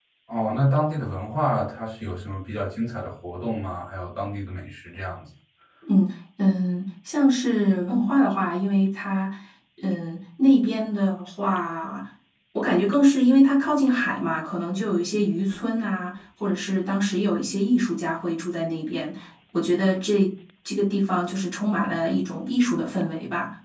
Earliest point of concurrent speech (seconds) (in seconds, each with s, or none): none